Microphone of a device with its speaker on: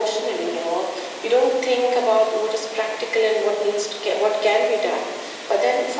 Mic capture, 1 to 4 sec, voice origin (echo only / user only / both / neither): echo only